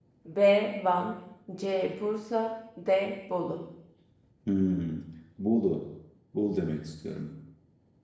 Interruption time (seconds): none

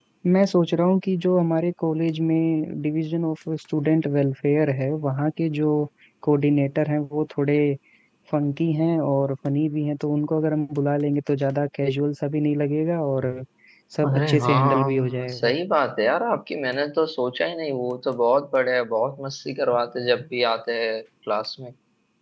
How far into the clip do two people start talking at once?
14.0 s

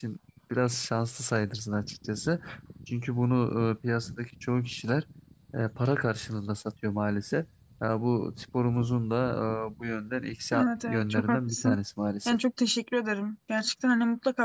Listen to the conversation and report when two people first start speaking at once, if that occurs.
10.5 s

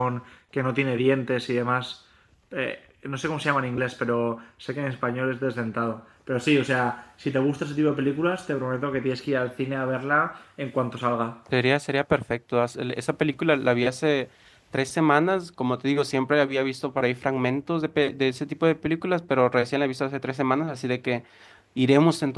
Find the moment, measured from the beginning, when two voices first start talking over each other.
none

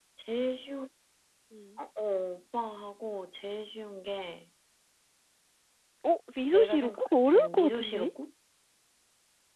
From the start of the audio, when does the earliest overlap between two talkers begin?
6.4 s

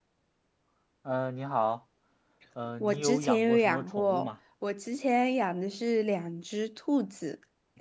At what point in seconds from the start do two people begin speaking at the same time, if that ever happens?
2.8 s

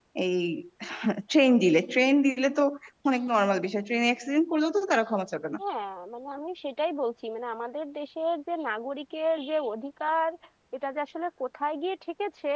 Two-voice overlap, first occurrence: none

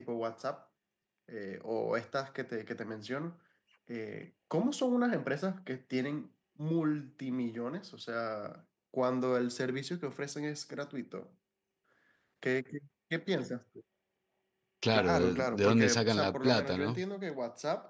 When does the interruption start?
14.9 s

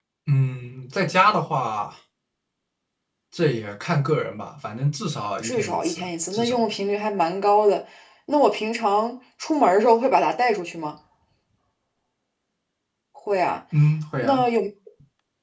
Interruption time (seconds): 5.4 s

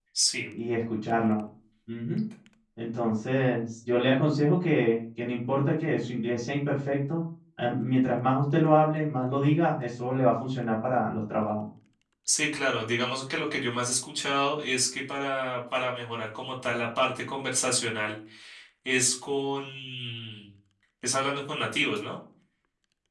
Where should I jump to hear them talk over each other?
none

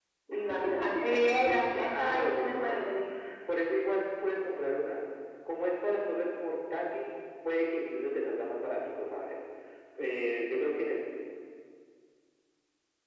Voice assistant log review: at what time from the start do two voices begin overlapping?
1.4 s

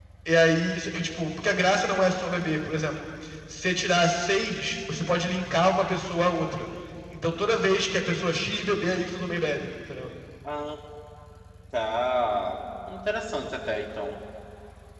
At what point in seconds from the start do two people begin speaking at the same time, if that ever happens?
none

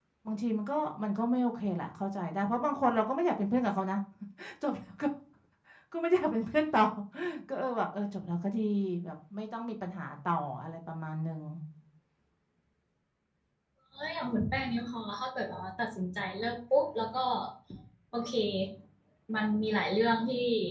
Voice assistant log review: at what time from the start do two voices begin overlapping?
none

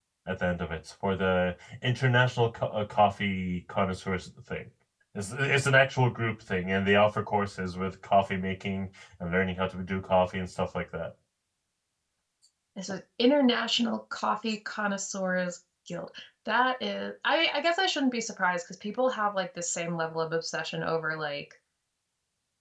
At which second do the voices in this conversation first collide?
none

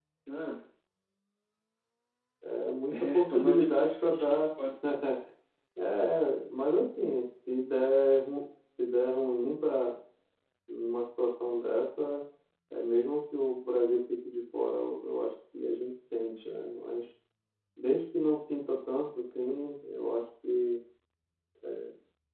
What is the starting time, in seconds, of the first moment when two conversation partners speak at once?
2.9 s

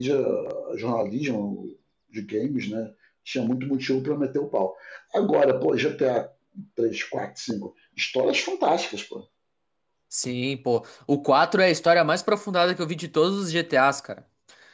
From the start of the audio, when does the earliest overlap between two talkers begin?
none

